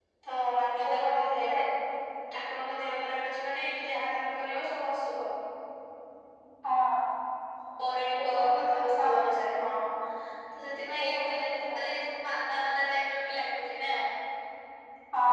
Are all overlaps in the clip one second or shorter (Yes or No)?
No